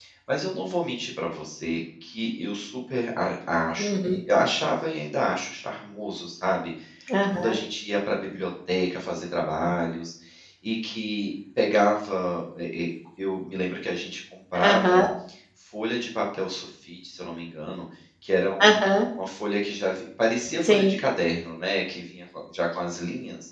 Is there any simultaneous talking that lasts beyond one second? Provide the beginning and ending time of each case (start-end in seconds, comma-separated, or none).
none